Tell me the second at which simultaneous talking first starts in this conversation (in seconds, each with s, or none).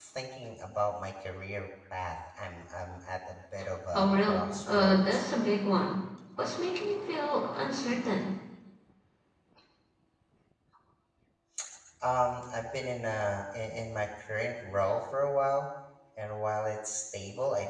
3.9 s